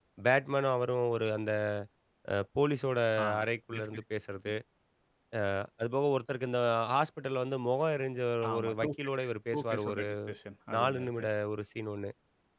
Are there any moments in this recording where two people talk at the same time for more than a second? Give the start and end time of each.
8.6-10.1

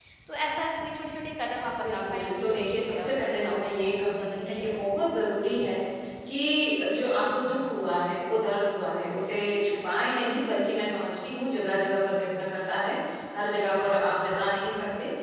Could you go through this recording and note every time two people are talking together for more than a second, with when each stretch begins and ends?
1.8-4.7

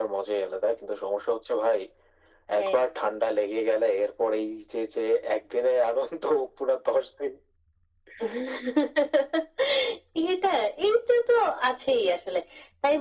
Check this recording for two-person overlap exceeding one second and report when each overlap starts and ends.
none

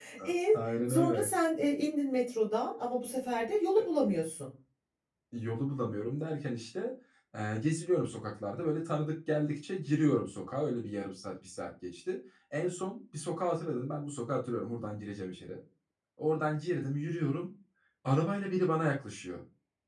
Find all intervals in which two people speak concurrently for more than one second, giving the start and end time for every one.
none

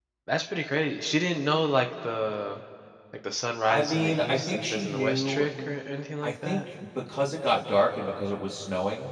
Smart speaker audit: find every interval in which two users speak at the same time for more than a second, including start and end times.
3.7-5.5

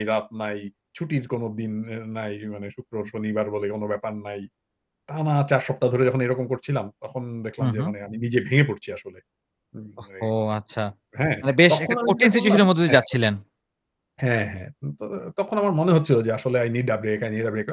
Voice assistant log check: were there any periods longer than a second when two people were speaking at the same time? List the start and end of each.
11.7-13.1

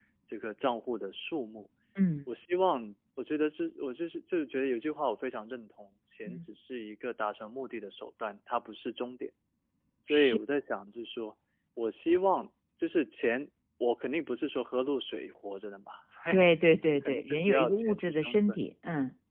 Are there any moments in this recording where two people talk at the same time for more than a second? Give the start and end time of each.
17.1-18.6

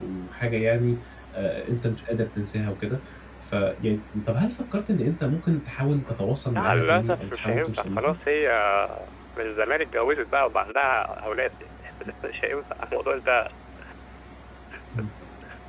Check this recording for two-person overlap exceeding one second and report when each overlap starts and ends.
6.5-8.1

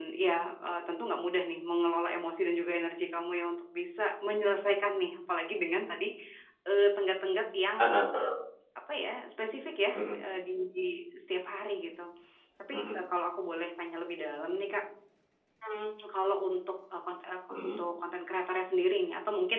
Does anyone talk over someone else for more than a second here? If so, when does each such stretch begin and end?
none

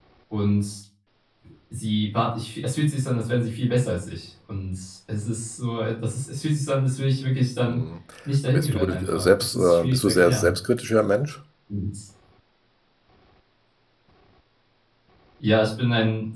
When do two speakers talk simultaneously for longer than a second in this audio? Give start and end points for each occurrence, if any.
8.5-10.5

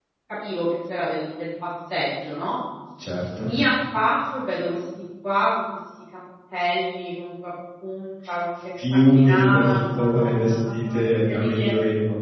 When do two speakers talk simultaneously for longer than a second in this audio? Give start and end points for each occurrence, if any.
8.9-11.7

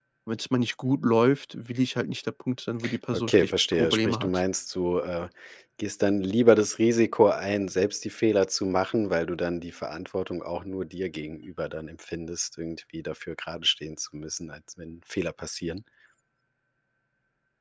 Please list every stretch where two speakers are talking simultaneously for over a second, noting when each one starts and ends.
3.1-4.4

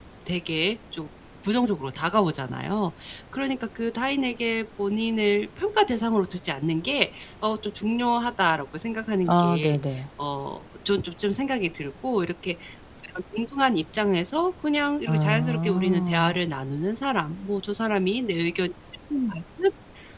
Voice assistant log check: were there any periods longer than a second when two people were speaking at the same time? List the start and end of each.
15.1-16.4

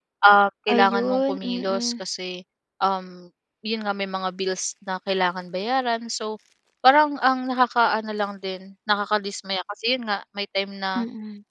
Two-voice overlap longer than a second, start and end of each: 0.7-1.9

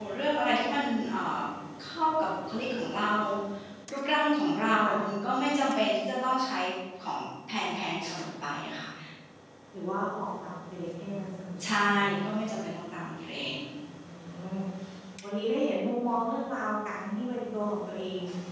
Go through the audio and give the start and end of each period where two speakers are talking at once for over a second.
none

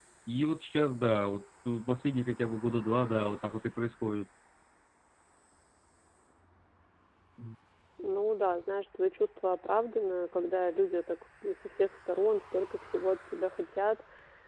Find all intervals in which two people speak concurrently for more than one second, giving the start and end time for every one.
none

